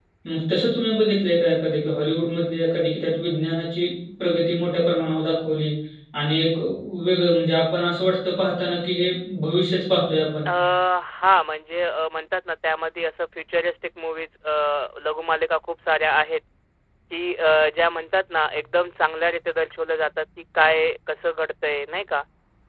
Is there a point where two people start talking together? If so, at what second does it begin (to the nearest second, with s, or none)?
none